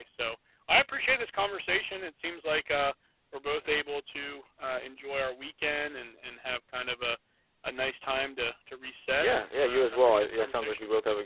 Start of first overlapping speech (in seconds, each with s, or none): 9.2 s